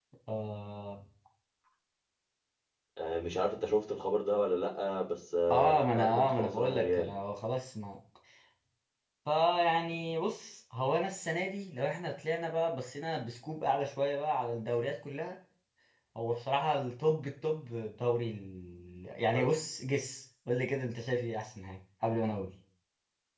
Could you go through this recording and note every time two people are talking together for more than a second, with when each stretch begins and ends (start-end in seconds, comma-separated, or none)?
5.5-7.1